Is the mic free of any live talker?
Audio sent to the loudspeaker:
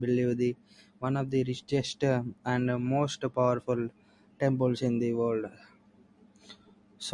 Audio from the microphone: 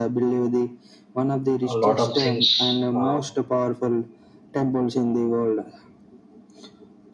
No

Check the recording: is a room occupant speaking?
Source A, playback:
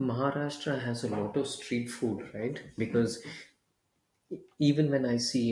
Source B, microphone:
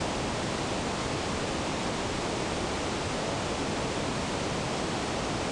No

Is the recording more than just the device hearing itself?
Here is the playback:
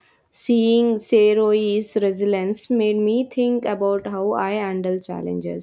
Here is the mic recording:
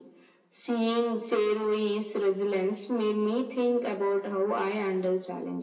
No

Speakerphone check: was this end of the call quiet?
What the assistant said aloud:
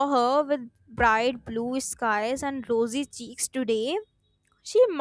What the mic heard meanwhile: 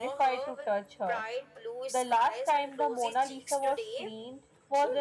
No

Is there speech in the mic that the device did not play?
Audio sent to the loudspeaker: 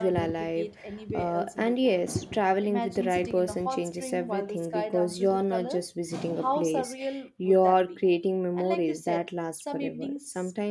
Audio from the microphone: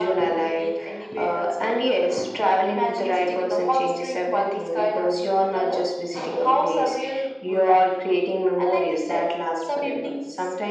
No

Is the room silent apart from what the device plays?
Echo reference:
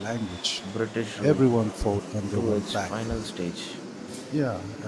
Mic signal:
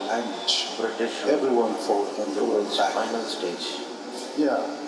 Yes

